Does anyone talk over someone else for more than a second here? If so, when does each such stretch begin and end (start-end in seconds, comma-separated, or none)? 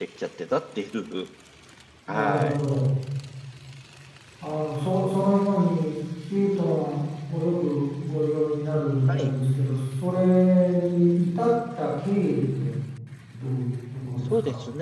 none